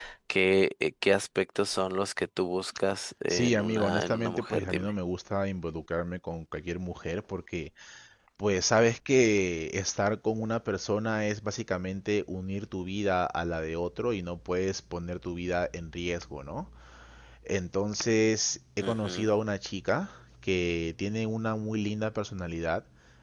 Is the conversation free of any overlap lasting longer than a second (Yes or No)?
No